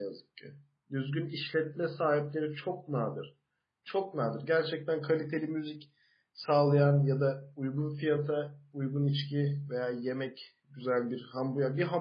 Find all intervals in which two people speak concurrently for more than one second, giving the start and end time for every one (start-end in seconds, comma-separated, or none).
none